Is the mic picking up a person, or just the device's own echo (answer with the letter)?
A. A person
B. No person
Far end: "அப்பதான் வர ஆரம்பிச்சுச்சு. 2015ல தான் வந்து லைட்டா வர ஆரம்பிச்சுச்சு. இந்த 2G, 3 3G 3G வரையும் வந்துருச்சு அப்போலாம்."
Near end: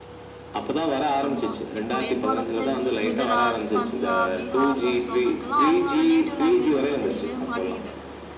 A